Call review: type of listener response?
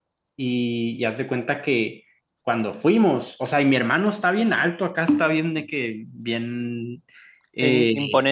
listening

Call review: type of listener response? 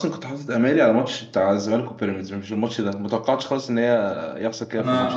taking over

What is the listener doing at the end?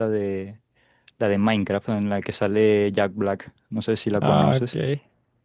taking over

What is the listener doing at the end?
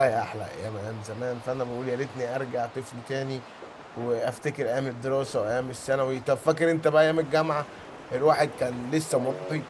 listening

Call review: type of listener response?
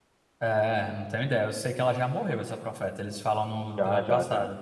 taking over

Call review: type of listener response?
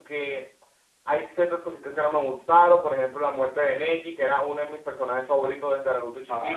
listening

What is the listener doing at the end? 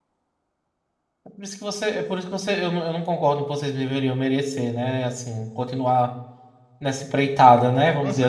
taking over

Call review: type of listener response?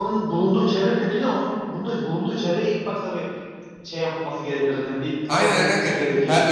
taking over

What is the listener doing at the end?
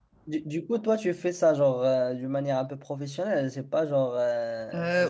taking over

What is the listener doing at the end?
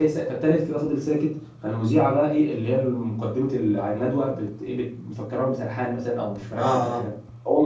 listening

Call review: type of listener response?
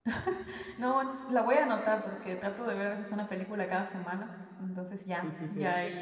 taking over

